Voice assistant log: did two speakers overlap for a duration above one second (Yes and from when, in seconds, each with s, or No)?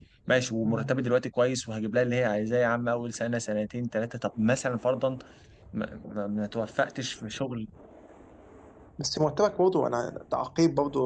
No